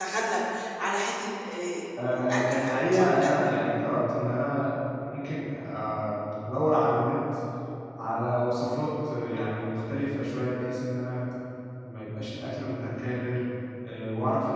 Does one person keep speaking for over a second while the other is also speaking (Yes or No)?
Yes